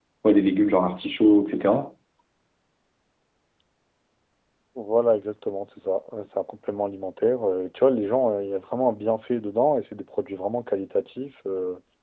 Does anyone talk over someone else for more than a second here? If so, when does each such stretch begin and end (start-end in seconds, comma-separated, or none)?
none